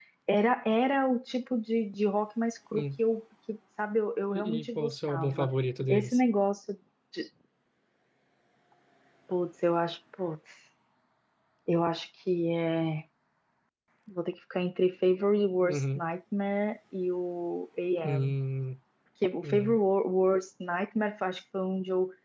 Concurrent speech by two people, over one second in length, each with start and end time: 4.3-5.5

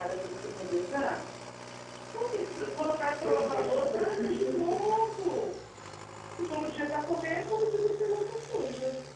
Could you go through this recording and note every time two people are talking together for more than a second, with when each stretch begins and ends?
3.2-4.9

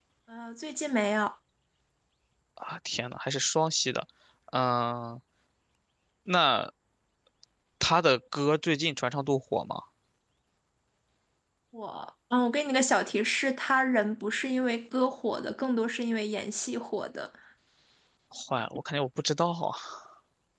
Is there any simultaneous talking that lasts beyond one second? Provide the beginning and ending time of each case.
none

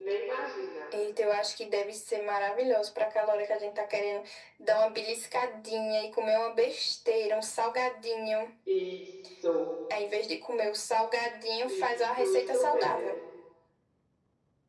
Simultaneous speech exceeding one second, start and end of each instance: 11.6-13.1

